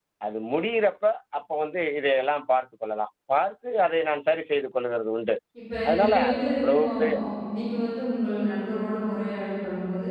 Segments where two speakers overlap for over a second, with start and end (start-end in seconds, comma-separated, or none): 5.9-7.2